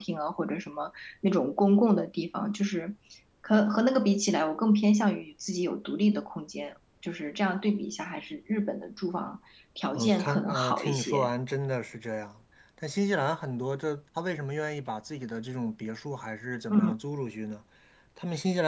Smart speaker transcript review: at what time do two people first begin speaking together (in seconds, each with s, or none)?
10.0 s